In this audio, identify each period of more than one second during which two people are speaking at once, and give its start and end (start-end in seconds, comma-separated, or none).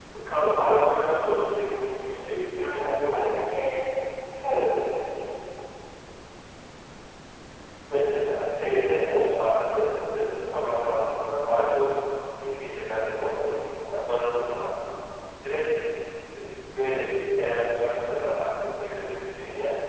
1.9-3.5